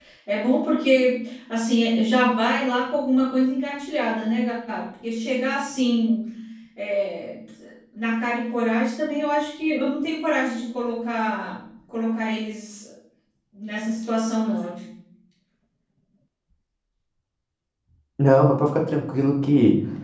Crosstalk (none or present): none